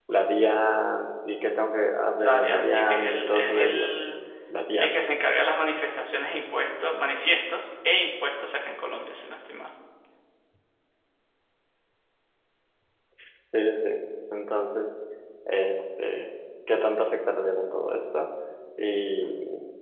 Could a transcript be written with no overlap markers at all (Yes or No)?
No